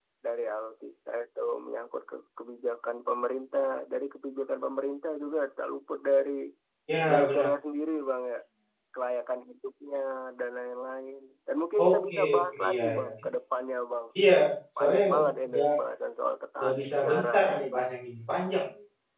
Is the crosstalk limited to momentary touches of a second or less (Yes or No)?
No